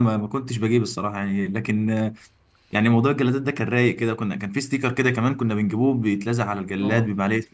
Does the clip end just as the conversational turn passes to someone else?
No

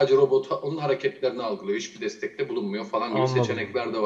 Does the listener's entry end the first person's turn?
Yes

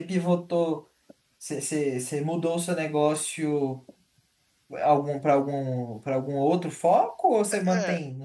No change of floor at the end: No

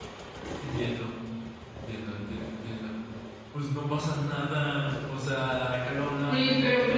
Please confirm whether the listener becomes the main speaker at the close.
Yes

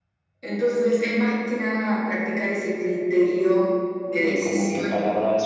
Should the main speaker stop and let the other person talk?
Yes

